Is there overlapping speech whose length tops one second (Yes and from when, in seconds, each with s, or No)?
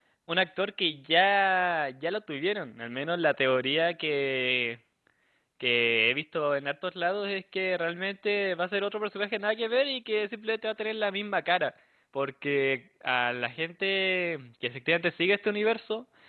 No